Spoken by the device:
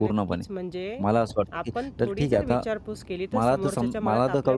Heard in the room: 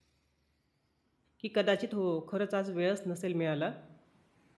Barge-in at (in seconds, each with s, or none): 1.4 s